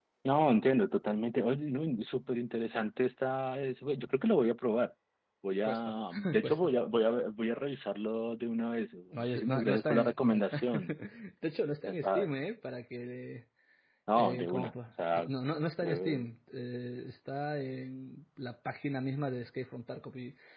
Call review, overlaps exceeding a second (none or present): present